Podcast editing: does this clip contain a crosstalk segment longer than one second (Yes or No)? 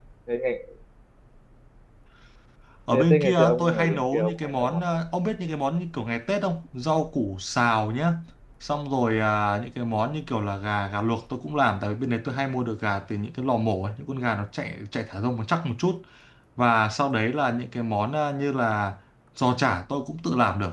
Yes